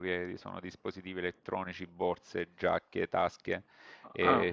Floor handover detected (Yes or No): No